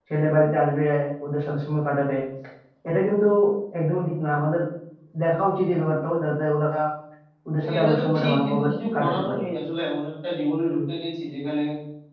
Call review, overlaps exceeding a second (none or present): present